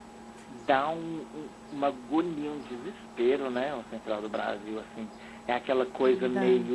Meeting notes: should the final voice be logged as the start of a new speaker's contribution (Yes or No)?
No